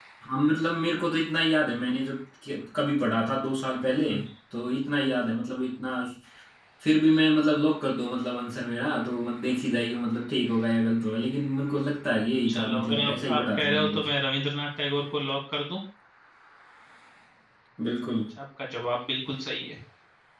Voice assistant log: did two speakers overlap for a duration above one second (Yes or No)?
Yes